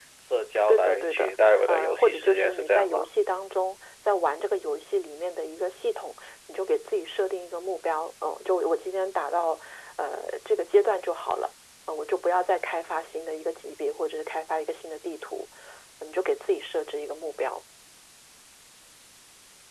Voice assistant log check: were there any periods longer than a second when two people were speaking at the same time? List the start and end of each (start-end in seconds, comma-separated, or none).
0.7-3.0